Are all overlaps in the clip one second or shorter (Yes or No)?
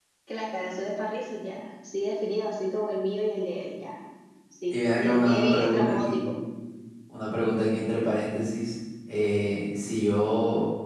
No